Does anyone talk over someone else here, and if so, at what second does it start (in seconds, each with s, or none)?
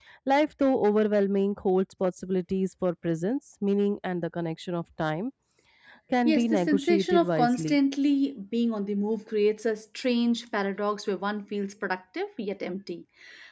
6.2 s